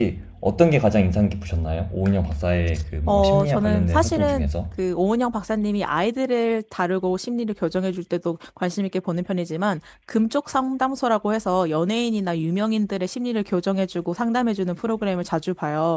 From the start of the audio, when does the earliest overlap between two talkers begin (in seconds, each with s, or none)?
3.1 s